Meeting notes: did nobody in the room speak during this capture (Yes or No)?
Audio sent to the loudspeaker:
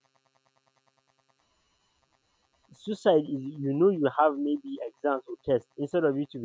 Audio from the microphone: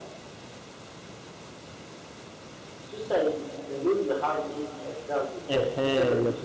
No